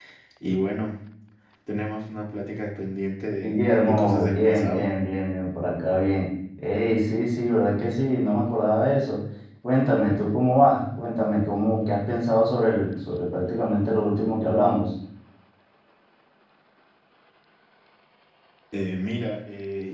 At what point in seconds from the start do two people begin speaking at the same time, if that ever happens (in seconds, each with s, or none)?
3.4 s